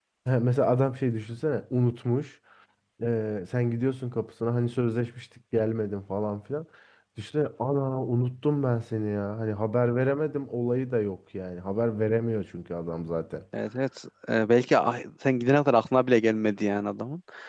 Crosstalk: none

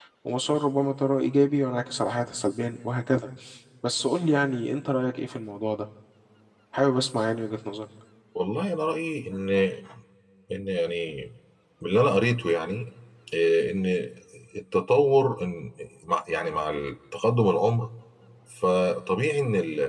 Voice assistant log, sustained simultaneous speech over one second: none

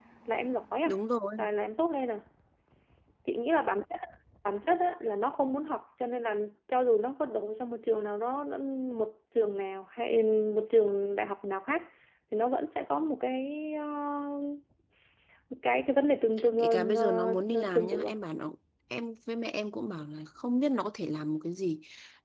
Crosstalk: present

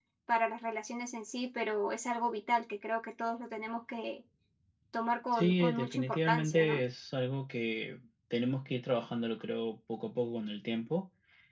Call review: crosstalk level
present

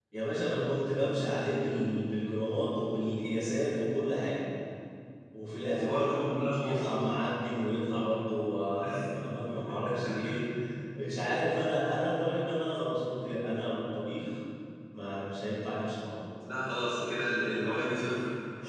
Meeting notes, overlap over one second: present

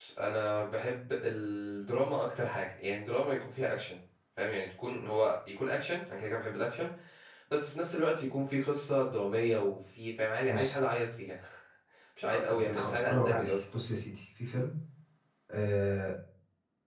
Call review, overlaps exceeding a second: present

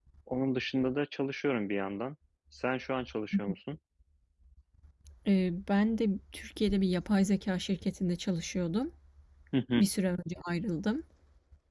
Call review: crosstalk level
none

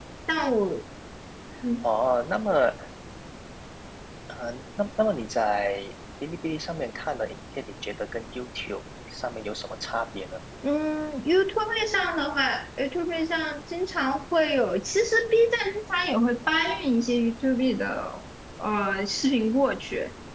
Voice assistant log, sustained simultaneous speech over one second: none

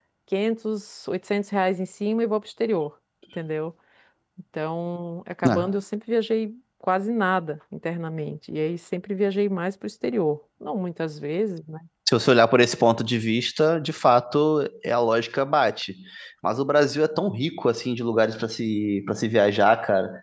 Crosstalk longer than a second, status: none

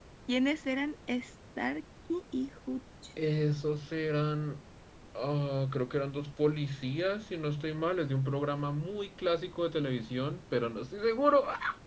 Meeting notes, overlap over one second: none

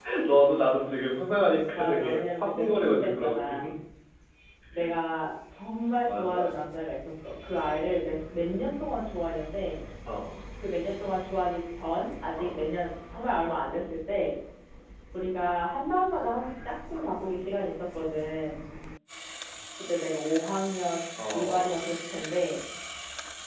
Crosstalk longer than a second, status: present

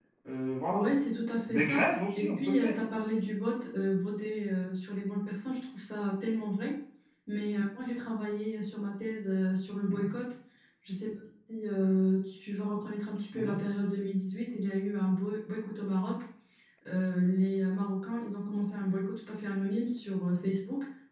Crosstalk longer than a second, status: present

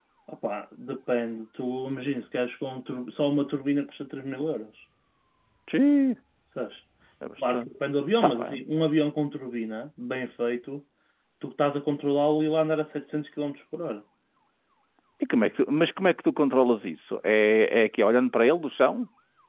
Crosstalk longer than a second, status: none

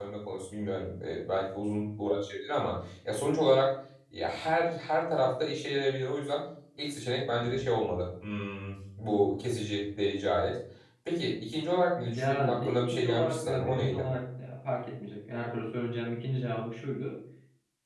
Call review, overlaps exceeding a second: present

